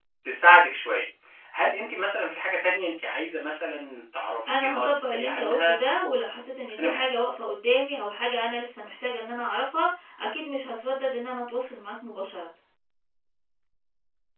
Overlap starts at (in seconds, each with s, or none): 4.5 s